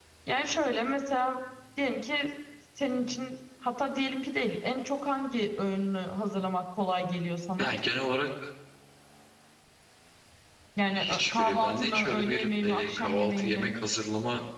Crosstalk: present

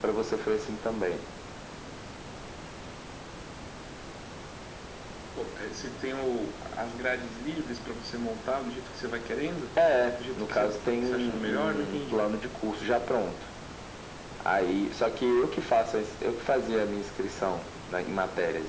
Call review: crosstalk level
present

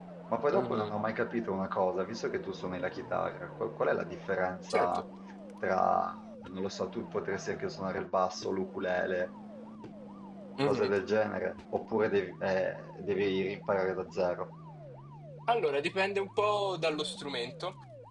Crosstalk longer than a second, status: none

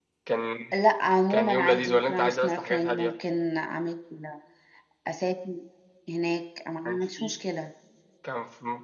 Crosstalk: present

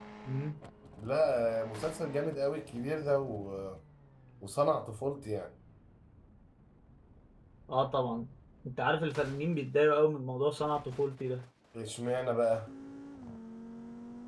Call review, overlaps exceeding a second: none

